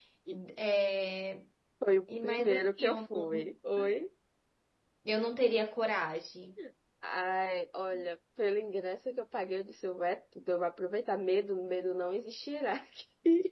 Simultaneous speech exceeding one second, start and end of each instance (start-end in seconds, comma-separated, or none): 2.2-3.5